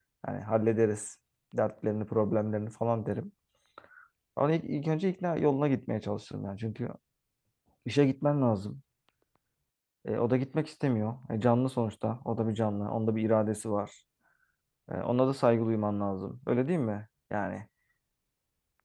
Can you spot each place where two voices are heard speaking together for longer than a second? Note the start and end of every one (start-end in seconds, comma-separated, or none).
none